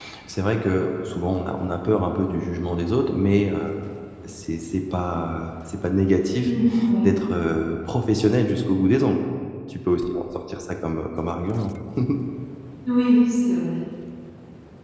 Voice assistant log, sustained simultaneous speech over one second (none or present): none